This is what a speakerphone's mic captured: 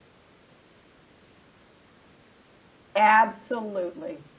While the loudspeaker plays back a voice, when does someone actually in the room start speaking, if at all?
3 s

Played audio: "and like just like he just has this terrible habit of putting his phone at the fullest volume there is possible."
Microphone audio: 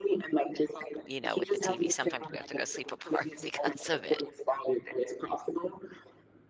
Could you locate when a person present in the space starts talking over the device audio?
1 s

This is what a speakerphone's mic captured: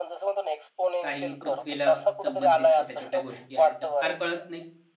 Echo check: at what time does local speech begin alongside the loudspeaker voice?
1 s

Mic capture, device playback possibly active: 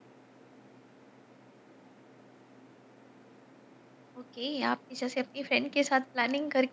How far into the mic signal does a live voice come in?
4 s

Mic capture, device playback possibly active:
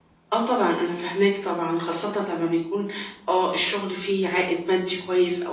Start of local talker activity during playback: none

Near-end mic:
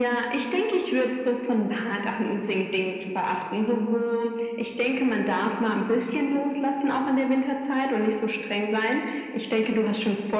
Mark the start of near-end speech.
none

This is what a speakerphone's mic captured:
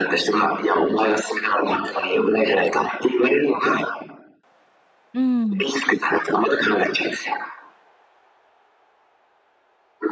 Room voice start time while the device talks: 5 s

